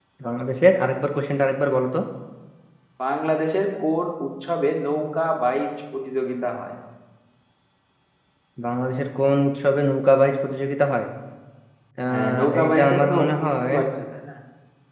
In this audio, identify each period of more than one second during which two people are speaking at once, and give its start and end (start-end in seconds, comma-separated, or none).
12.1-13.7